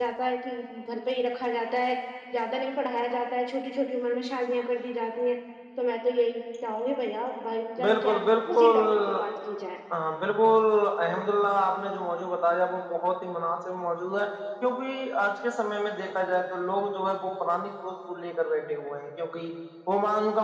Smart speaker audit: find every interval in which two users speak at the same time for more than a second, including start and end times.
7.9-9.2

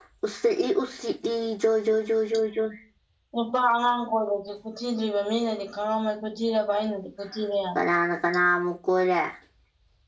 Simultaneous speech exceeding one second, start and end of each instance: none

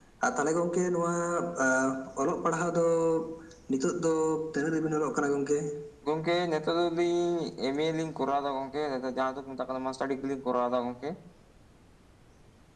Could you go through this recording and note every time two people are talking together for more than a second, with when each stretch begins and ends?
none

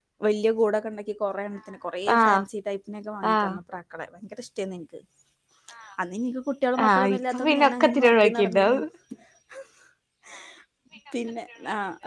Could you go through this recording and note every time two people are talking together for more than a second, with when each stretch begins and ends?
6.9-8.8

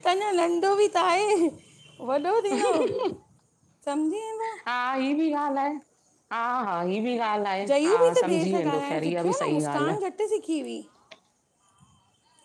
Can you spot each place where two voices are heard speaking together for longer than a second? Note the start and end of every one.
7.7-10.0

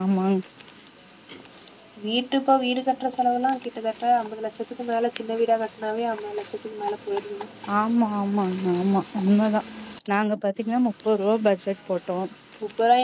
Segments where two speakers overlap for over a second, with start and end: none

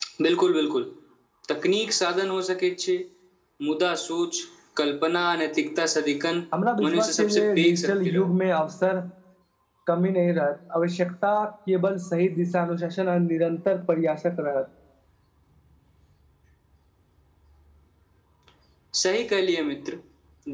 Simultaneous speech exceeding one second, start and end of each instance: 6.9-8.3

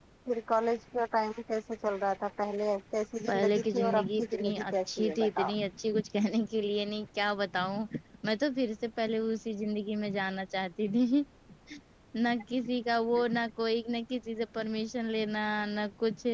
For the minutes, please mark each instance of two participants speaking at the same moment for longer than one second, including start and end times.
3.2-5.5

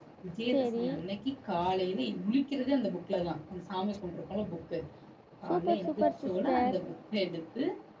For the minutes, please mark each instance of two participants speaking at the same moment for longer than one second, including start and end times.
5.5-6.7

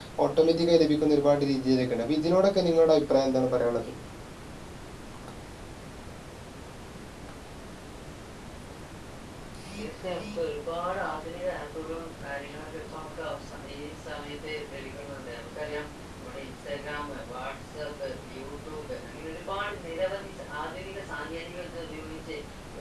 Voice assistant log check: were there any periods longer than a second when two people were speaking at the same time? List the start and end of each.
none

